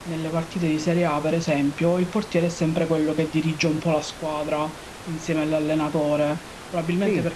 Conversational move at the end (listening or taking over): listening